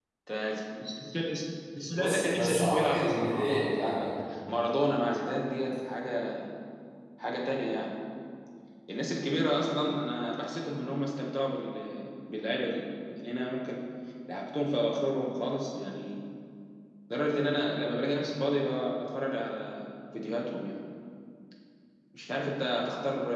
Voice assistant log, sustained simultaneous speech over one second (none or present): present